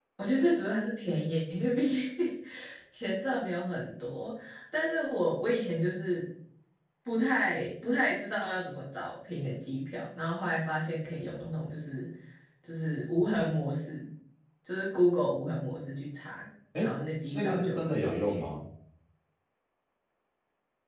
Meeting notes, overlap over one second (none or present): present